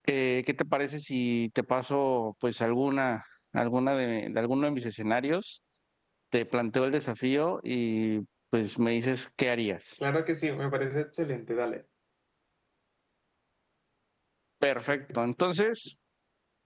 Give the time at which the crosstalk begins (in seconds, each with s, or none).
none